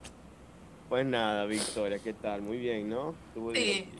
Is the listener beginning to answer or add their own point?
Yes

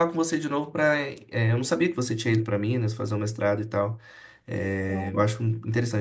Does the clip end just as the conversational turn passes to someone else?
No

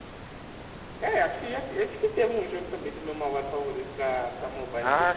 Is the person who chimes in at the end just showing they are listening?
No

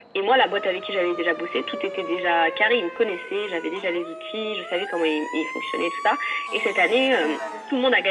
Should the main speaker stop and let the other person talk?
No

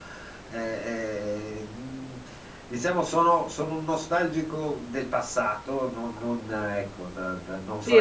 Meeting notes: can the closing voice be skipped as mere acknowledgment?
No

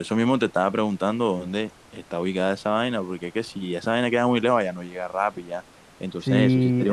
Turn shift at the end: Yes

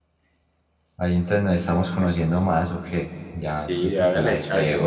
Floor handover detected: Yes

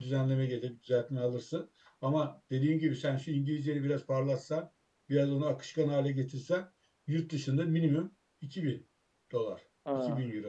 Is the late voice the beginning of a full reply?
Yes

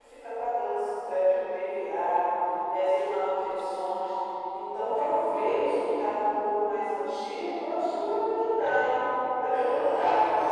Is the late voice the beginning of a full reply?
Yes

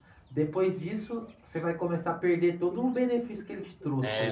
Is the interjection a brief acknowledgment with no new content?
No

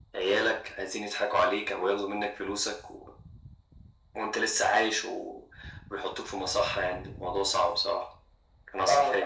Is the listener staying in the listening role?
No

